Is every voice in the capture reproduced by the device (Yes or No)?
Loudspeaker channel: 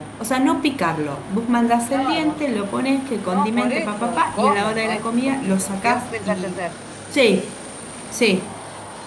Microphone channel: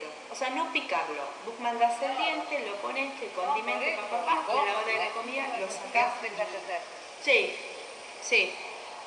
No